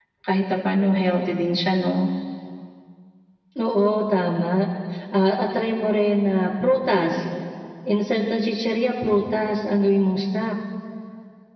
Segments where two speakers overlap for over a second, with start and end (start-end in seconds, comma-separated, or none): none